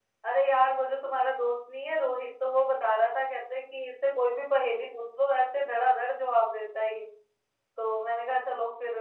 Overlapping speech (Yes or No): No